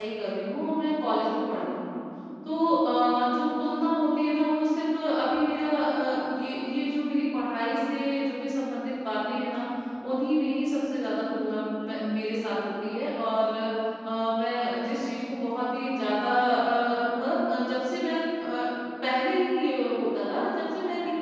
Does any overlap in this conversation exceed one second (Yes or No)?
No